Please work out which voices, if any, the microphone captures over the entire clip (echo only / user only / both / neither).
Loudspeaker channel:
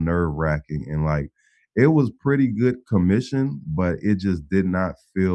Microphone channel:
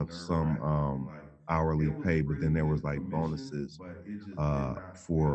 both